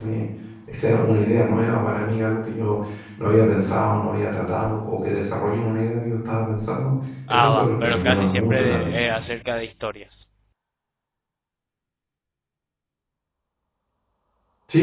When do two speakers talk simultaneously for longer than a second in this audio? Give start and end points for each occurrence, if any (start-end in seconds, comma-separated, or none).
7.3-9.0